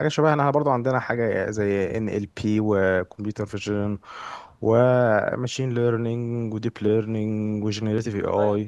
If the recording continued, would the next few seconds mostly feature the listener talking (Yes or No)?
Yes